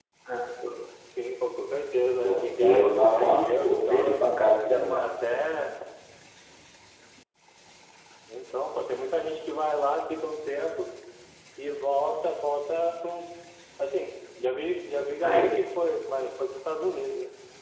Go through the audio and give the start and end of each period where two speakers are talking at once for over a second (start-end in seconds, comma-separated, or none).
2.2-4.2